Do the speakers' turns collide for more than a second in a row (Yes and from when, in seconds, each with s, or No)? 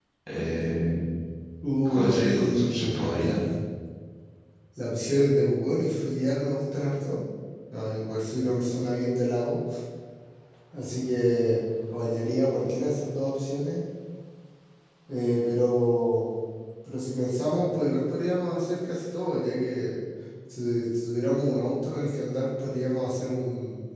Yes, from 1.9 s